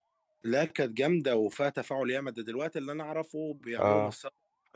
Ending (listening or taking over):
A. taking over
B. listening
B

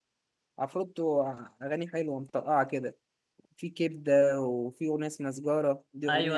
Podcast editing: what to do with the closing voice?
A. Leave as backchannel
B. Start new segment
B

